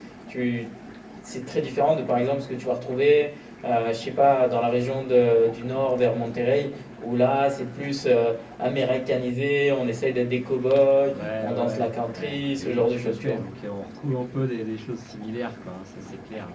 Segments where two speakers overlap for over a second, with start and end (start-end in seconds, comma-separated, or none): 11.1-13.4